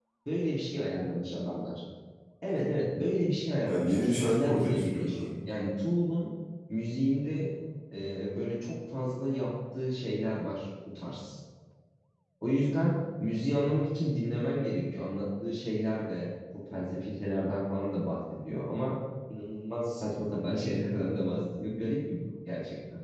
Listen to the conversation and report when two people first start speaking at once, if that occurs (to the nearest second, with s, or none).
4 s